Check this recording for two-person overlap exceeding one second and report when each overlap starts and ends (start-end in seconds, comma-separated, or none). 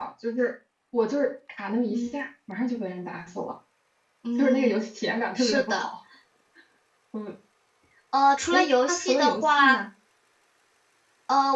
8.5-9.8